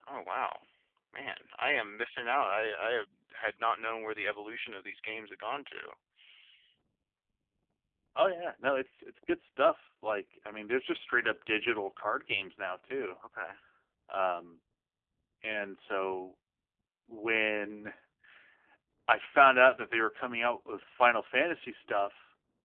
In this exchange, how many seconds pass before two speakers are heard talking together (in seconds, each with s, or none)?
none